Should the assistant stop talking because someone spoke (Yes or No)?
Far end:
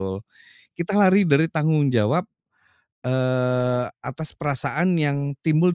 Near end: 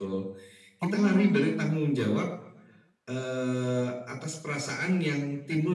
Yes